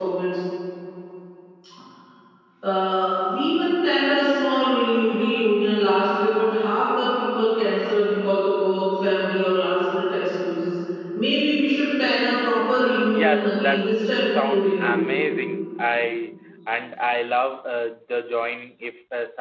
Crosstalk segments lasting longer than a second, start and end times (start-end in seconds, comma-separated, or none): 13.1-15.0